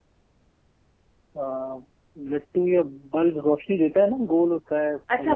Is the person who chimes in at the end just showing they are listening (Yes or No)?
No